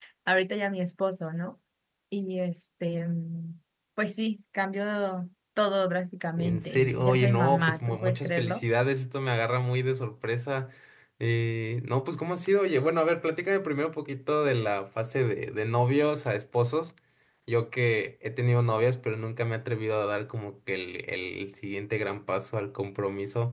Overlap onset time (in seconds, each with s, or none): 6.4 s